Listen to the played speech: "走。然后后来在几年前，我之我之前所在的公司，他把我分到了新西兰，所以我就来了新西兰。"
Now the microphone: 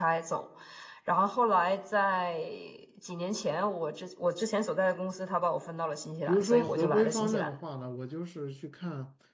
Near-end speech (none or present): present